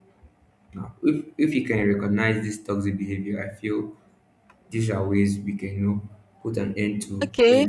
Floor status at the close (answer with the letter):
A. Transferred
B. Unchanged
A